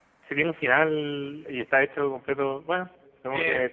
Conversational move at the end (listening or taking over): taking over